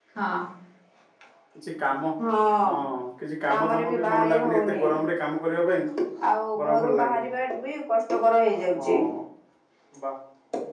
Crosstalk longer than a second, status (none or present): present